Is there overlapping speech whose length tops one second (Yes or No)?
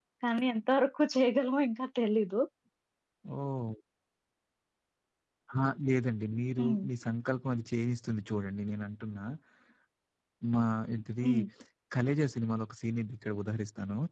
No